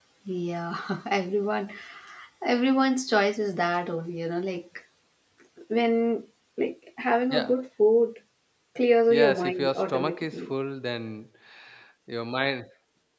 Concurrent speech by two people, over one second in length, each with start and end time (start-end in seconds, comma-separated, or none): 9.1-10.5